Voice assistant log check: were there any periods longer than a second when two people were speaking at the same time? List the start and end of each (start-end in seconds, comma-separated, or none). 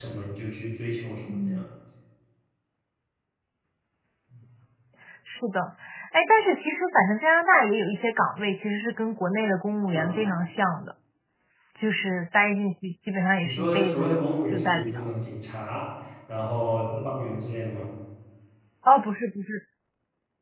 13.4-15.1